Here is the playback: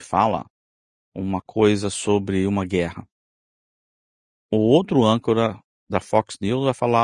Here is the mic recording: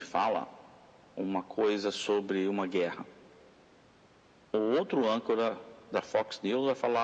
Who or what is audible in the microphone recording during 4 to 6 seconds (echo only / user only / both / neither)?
echo only